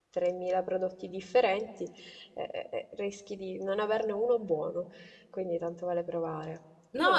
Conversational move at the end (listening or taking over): taking over